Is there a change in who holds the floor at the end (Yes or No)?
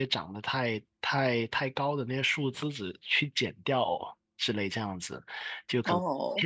No